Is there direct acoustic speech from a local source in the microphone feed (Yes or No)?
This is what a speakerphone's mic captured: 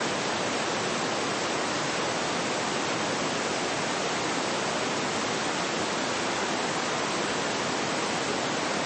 No